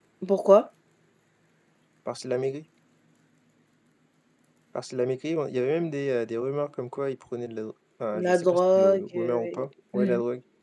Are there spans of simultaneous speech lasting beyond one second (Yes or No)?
Yes